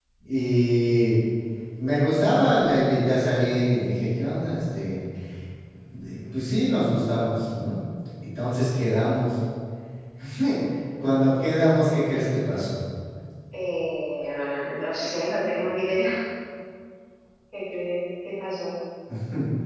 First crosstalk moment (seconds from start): none

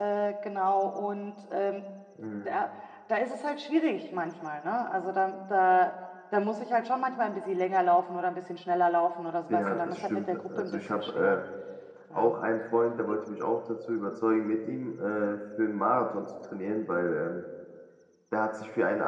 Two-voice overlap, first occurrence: 9.5 s

